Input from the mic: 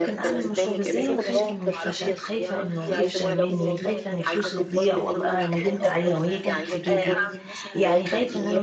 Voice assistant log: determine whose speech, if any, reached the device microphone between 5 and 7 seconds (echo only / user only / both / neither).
both